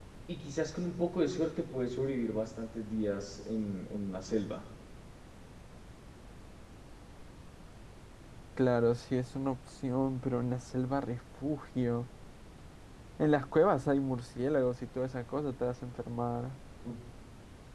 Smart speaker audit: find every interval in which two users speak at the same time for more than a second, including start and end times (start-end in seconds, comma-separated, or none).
none